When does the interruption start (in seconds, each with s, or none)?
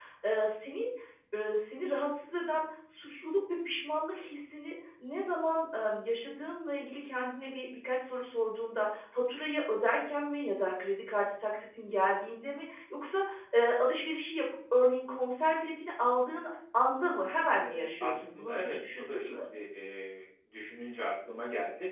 17.6 s